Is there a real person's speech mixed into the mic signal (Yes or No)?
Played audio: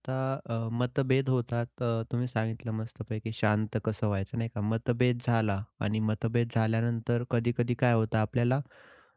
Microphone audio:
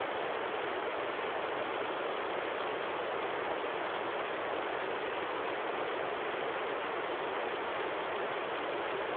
No